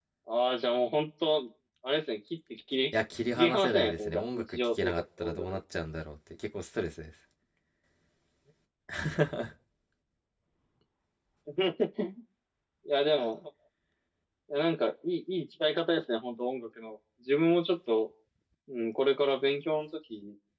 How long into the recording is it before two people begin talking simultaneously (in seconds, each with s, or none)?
3.4 s